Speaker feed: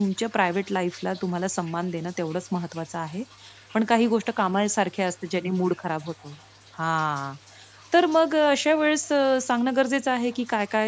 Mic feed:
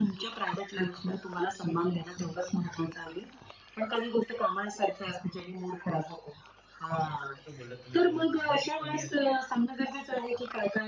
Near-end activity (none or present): present